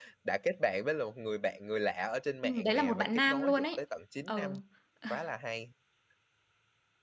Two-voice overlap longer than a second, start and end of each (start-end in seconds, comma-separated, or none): 2.4-3.8